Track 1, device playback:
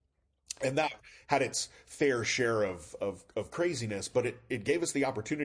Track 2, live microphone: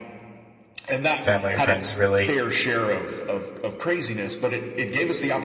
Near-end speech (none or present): present